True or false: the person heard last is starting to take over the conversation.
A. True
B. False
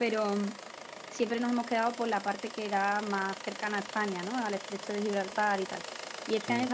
B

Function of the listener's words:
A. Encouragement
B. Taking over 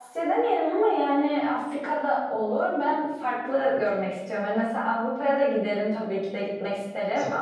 A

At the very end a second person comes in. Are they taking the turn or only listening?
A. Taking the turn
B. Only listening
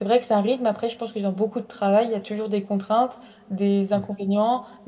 B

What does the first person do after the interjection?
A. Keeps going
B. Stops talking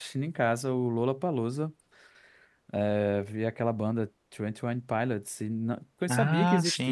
A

